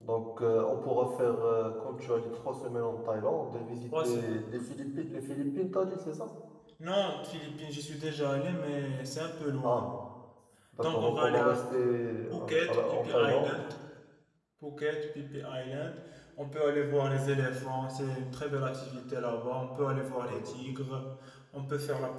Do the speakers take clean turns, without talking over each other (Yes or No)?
No